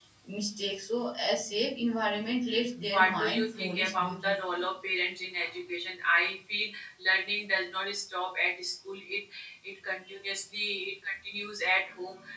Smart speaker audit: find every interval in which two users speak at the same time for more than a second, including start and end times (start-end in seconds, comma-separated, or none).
2.9-4.7